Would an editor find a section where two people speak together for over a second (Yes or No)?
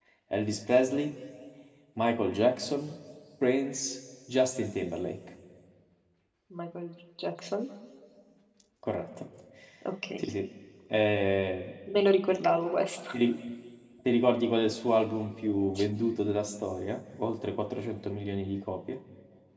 No